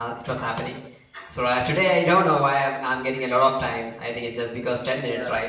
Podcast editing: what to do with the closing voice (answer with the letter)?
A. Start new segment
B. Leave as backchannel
A